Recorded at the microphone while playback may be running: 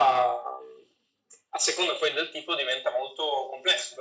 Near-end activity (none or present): none